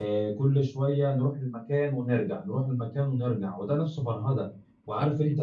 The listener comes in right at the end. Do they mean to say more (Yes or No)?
No